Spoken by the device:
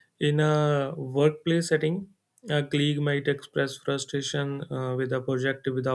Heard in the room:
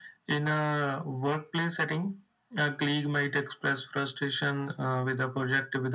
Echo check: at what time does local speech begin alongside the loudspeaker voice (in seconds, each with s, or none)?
none